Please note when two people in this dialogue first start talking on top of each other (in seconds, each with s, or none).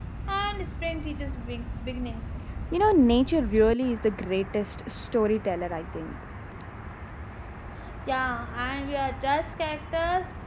none